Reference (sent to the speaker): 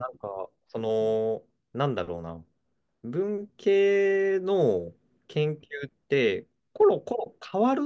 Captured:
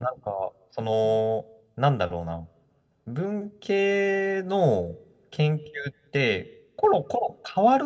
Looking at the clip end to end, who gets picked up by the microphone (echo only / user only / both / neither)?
echo only